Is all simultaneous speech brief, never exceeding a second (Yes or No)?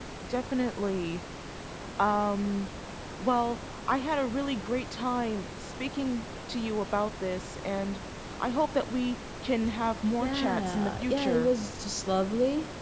No